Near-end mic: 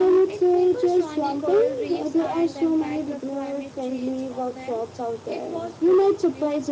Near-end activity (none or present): present